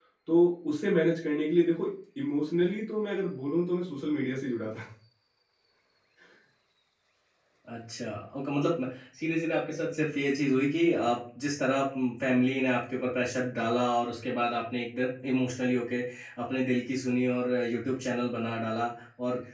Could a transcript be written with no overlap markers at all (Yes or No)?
Yes